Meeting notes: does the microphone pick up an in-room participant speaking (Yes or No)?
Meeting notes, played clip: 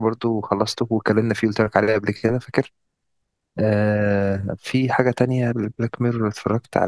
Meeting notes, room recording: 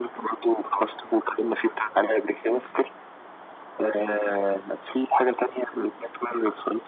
No